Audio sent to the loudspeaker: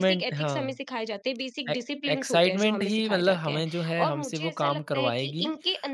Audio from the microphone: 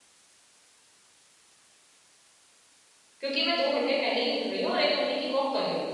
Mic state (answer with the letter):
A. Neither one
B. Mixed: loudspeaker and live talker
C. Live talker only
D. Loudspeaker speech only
C